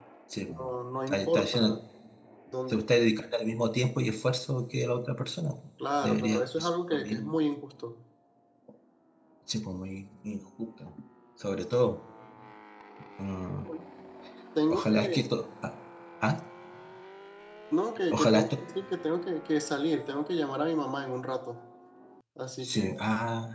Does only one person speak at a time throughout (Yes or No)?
No